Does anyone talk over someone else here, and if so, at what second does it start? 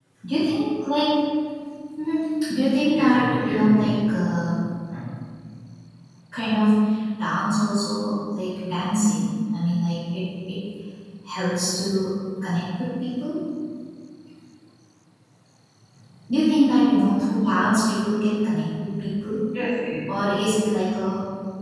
2.9 s

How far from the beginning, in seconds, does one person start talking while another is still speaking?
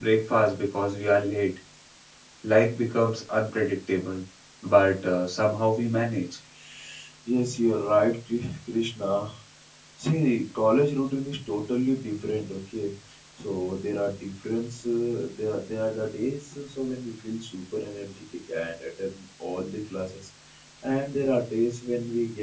none

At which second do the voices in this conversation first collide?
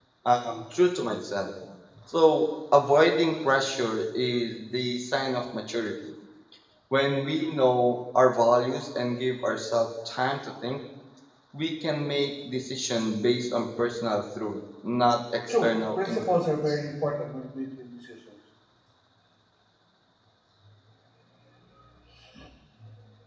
15.5 s

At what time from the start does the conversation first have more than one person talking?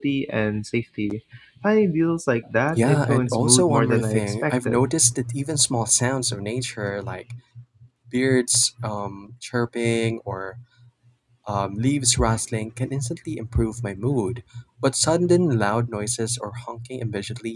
2.8 s

